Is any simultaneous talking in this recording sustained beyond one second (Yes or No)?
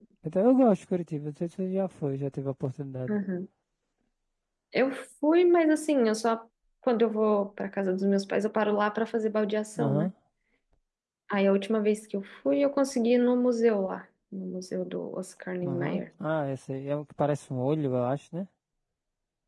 No